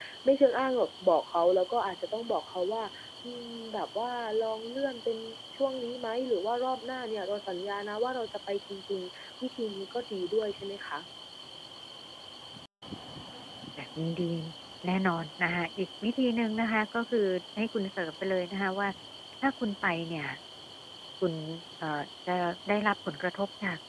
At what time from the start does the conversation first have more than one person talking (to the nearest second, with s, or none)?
none